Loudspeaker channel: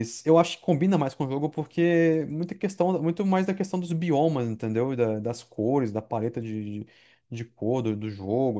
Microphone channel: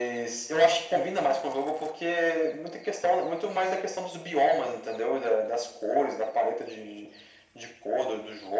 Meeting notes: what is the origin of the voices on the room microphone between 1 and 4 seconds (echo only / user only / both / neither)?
echo only